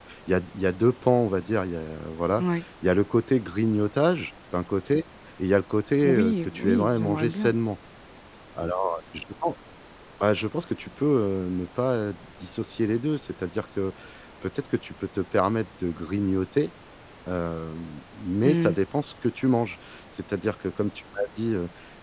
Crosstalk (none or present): present